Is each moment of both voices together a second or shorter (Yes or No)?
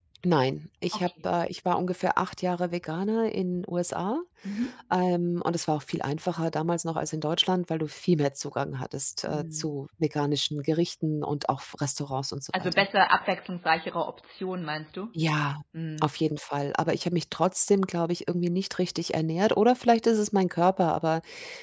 Yes